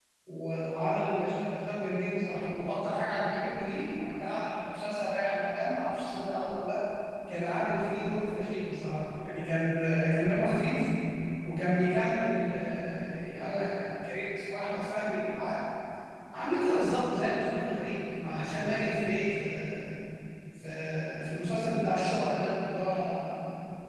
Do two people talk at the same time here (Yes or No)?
No